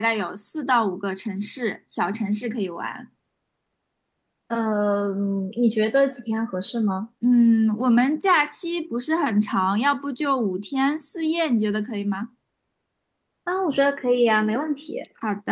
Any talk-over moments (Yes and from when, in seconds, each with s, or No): No